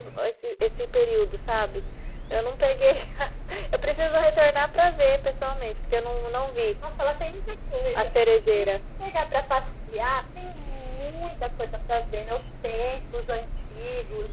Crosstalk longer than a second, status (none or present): none